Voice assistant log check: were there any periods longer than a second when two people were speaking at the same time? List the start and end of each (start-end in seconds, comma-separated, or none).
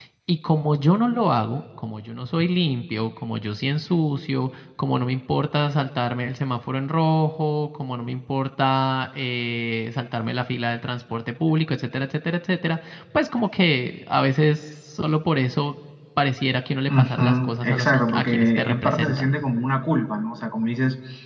16.9-19.4